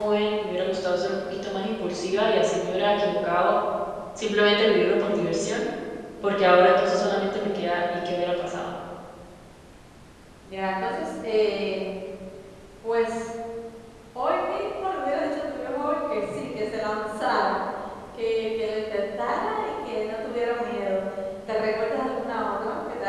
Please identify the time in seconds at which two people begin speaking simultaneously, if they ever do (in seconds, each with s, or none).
none